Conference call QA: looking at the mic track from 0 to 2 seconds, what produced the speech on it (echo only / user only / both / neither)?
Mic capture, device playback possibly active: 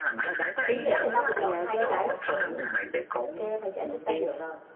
both